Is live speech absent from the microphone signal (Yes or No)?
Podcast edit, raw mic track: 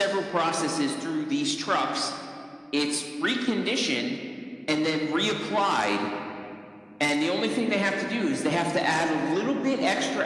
Yes